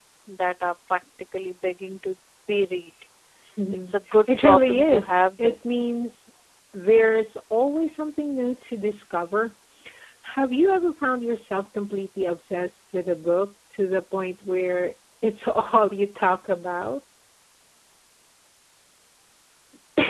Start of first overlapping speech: 3.7 s

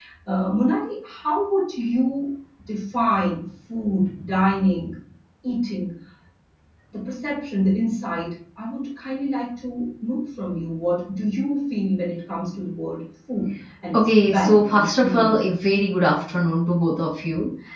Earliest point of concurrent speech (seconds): 13.9 s

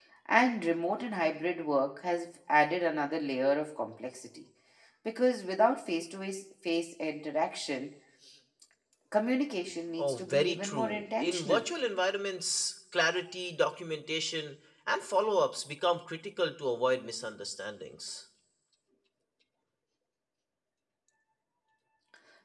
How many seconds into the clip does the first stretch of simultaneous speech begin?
10.0 s

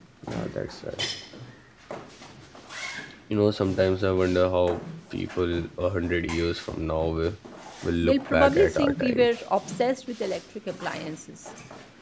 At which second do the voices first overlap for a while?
8.0 s

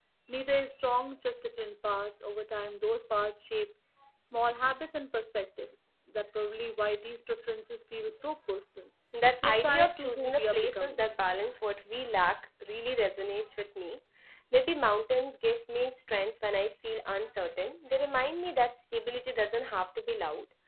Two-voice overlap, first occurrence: 9.4 s

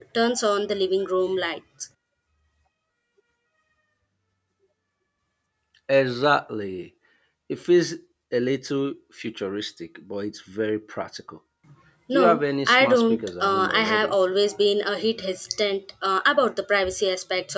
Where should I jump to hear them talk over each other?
12.1 s

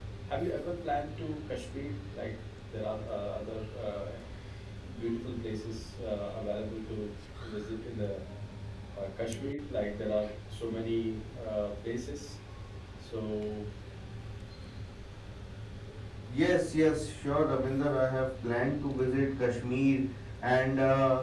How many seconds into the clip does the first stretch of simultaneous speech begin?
none

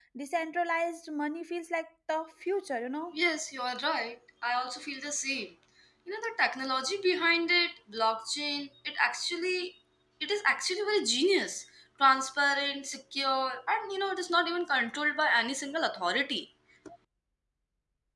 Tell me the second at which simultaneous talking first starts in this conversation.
none

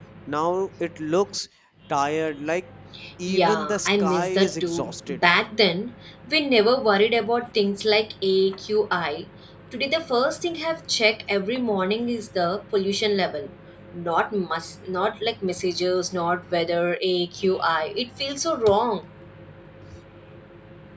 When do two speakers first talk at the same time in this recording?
3.3 s

